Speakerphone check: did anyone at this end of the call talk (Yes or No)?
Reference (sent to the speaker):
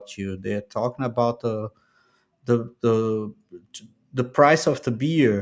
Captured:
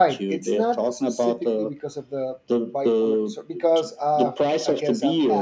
Yes